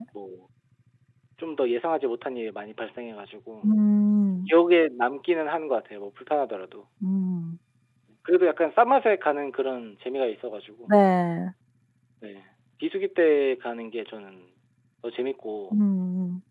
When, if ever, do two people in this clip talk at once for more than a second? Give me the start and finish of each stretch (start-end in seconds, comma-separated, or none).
none